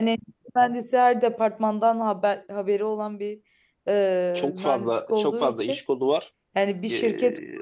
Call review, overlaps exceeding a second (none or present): present